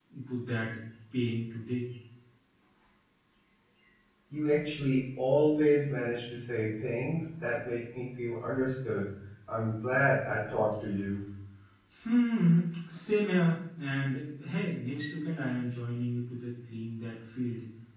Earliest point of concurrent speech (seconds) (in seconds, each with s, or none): none